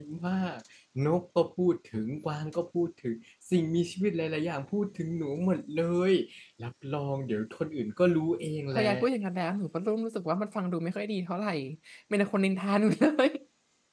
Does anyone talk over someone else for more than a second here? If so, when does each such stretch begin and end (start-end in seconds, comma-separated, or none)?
none